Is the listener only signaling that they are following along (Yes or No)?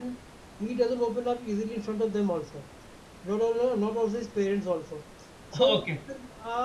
Yes